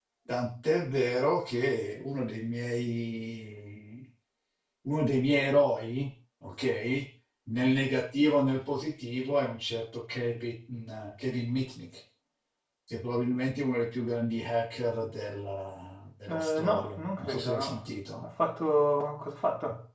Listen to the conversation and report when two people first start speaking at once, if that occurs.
16 s

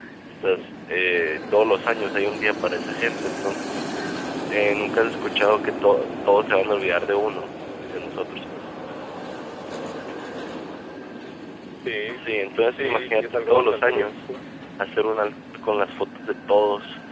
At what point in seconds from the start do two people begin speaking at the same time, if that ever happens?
13 s

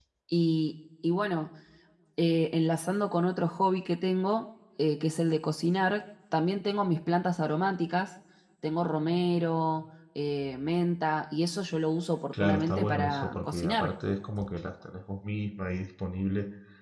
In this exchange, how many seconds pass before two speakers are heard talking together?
12 s

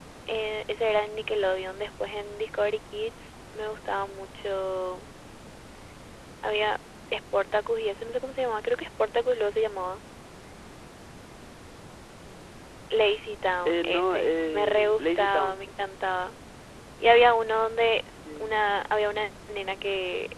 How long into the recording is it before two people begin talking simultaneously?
14 s

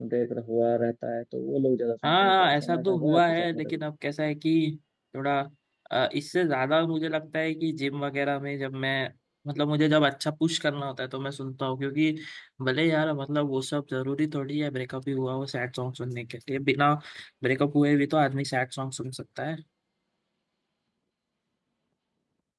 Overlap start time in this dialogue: 2 s

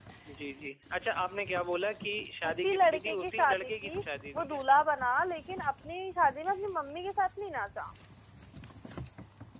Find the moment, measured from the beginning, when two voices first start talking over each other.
2 s

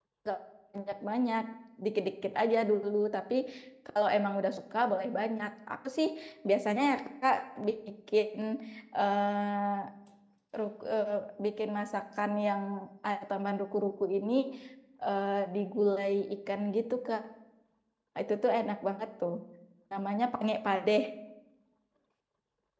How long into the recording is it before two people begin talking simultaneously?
none

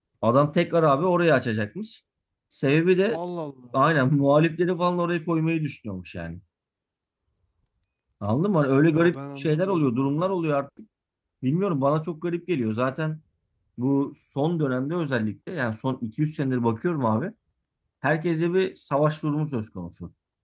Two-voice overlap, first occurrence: 9 s

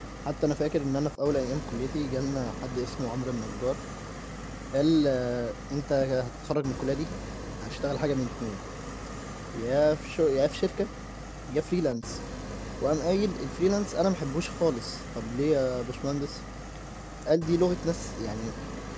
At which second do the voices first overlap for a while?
none

